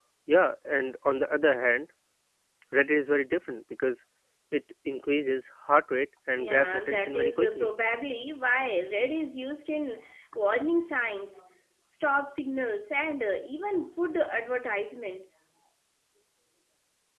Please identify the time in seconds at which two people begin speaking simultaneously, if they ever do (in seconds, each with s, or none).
6.4 s